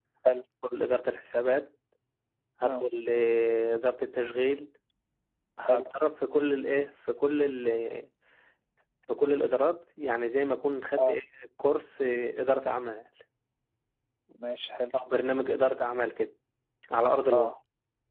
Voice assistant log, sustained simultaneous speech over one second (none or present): none